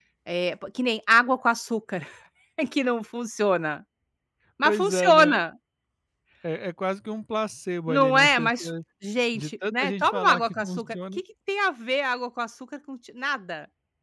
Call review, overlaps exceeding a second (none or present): present